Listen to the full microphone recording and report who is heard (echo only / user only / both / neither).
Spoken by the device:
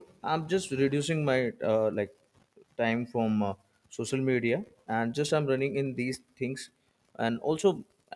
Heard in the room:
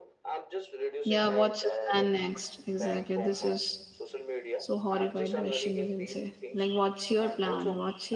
both